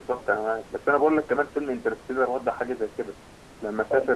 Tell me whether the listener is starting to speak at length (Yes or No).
Yes